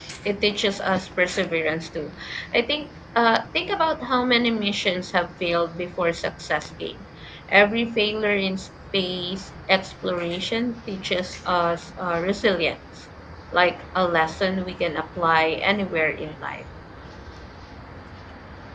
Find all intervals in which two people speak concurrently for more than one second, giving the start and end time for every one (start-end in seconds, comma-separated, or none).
none